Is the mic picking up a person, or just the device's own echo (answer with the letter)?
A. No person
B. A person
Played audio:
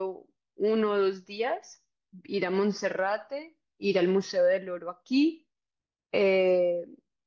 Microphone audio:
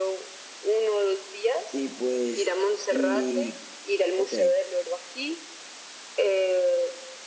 B